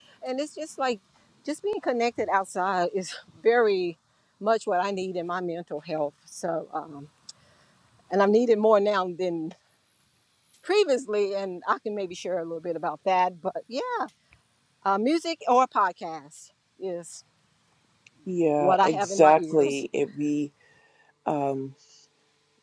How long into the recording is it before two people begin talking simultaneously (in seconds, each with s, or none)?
18.6 s